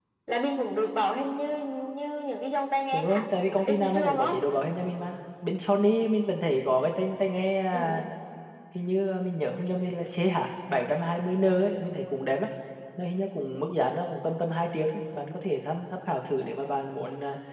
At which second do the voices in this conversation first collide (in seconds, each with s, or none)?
2.9 s